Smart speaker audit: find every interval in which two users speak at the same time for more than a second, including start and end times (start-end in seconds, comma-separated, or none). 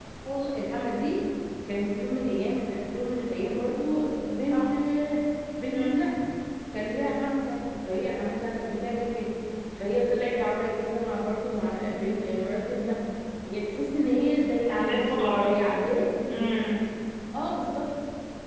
none